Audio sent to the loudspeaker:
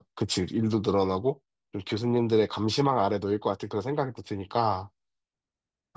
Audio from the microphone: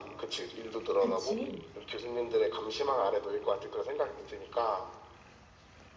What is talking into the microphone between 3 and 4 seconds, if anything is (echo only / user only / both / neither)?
echo only